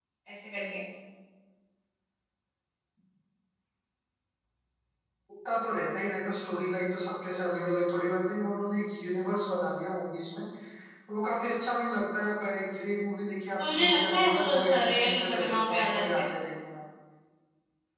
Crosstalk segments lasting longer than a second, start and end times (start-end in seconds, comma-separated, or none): 13.6-16.2